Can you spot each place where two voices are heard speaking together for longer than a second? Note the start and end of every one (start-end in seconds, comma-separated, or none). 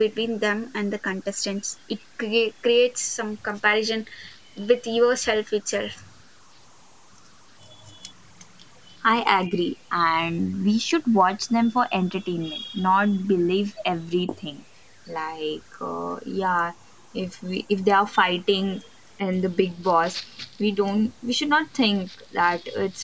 none